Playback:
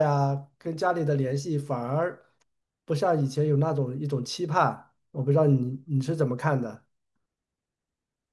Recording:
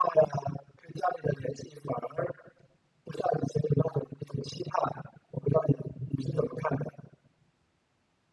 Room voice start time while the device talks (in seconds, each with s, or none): none